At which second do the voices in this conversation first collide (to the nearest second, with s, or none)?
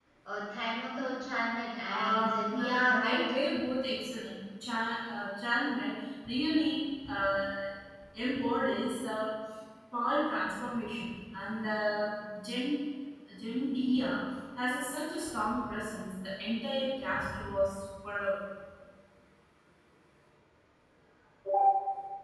2 s